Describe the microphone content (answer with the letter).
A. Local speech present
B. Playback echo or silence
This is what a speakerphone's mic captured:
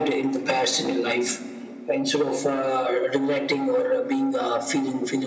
B